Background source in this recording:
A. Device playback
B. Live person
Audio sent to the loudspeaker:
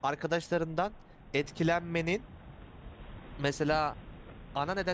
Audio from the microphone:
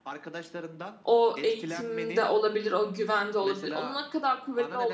A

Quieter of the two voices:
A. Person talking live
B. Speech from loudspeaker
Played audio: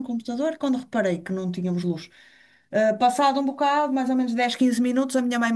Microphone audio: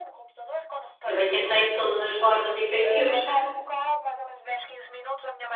B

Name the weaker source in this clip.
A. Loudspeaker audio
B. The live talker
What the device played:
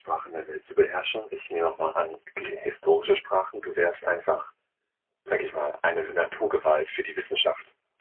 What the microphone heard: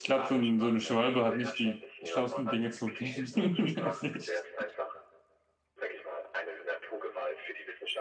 A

